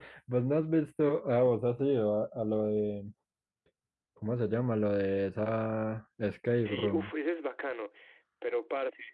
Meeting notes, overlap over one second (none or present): none